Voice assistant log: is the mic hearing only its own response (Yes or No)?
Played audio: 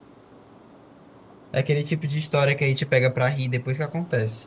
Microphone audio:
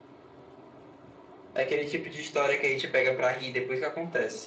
Yes